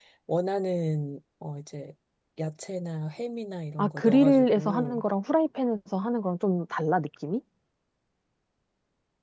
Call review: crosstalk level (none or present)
present